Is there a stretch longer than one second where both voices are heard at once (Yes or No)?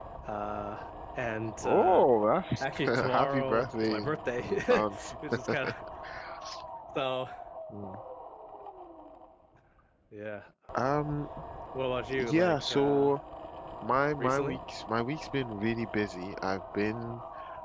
Yes